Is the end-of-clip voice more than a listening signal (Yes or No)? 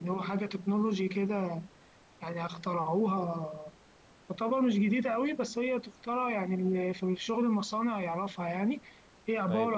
Yes